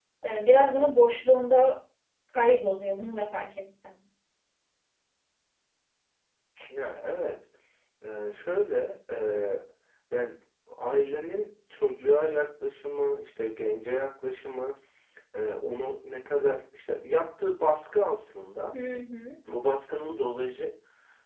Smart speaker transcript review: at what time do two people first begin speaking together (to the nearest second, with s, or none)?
none